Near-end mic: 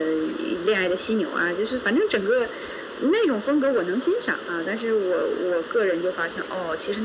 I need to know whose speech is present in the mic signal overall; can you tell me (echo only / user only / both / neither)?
echo only